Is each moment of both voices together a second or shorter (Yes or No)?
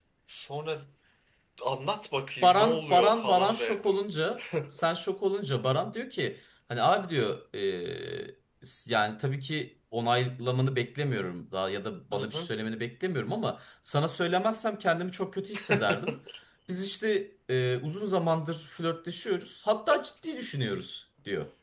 No